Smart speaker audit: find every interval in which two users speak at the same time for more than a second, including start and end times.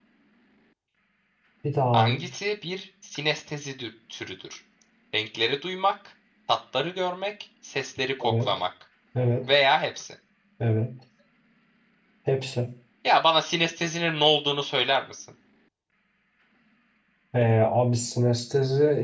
none

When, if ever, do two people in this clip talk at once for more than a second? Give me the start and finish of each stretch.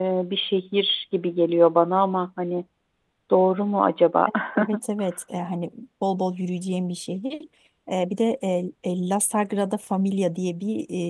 none

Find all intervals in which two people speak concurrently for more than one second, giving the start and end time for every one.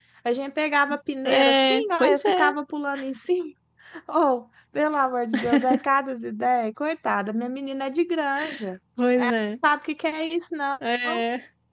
1.2-2.5

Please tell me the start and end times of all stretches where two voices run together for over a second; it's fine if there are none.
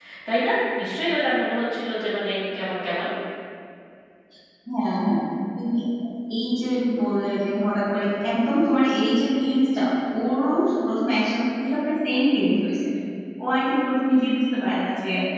none

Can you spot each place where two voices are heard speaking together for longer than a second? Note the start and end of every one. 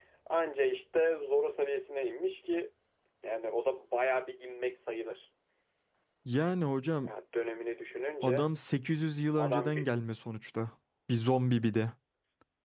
none

